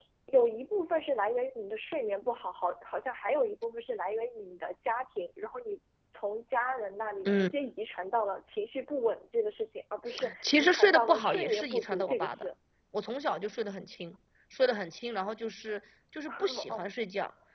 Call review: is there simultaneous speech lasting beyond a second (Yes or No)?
Yes